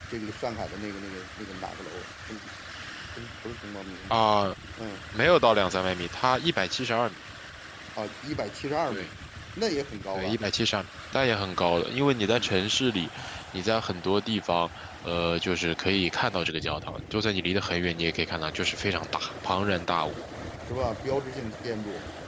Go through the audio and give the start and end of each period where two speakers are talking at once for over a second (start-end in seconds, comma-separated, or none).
none